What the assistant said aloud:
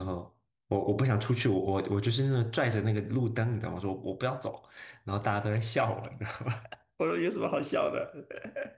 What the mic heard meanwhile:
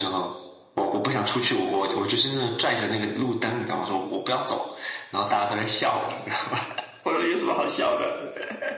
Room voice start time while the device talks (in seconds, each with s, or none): none